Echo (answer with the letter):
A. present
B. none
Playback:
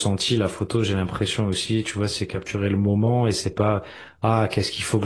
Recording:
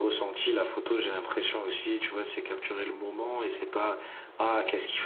A